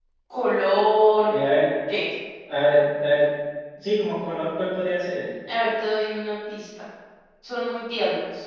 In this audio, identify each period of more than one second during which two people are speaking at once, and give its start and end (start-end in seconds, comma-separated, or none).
none